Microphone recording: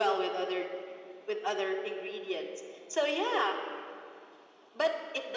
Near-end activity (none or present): none